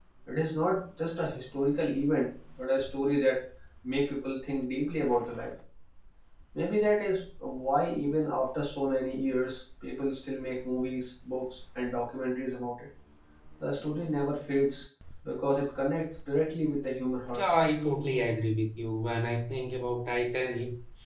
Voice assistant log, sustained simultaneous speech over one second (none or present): none